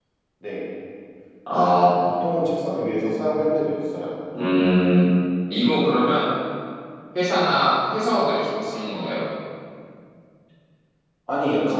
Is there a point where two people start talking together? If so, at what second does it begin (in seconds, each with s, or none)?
none